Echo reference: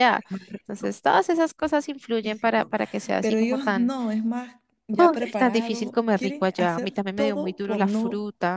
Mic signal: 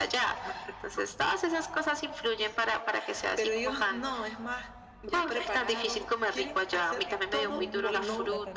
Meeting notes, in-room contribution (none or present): present